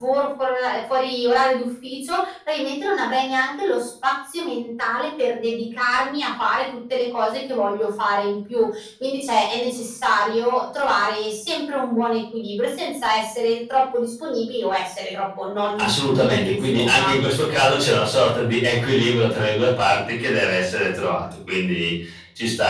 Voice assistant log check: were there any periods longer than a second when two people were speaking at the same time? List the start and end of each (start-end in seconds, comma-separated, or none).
15.8-17.1